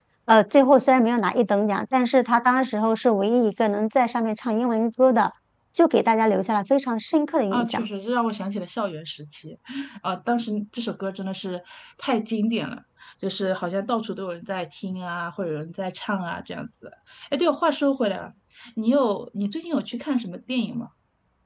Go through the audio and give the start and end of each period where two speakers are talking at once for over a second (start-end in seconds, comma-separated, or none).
none